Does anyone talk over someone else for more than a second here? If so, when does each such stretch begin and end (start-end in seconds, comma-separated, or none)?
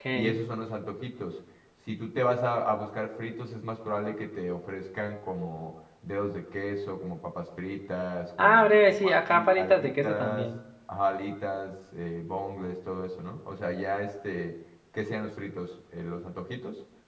8.4-10.4